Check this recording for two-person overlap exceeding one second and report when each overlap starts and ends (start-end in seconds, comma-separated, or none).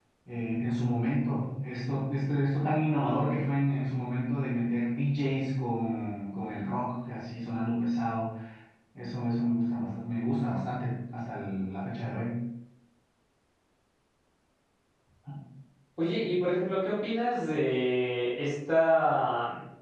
none